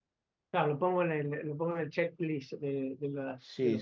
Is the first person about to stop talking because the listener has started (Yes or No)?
Yes